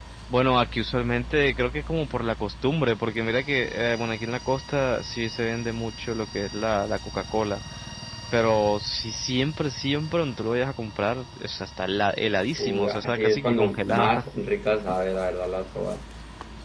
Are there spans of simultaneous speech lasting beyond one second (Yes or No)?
Yes